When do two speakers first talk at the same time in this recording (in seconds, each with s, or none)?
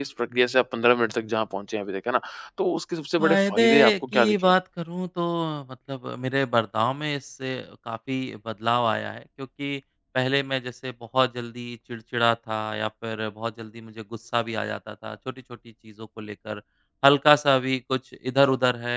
3.2 s